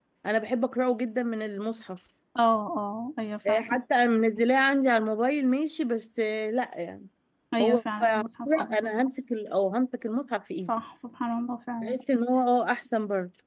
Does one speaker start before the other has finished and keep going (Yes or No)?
Yes